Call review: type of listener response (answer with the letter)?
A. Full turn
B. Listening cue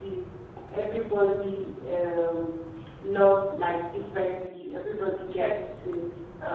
B